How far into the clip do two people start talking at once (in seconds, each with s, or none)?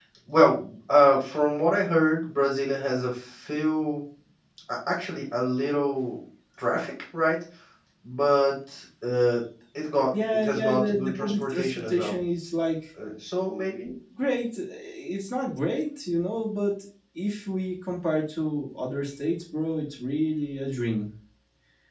10.1 s